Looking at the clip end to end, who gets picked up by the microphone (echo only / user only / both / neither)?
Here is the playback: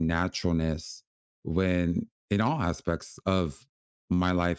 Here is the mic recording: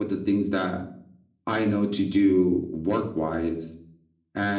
user only